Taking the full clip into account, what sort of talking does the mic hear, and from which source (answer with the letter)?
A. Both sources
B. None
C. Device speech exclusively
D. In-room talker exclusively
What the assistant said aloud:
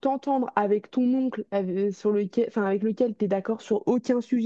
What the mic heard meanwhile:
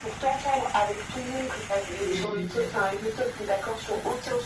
A